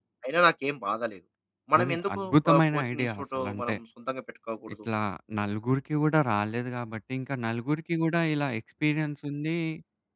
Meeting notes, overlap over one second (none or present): present